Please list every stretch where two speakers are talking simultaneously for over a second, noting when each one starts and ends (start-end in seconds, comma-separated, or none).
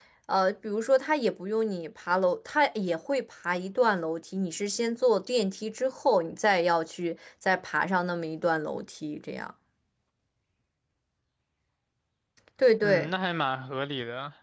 none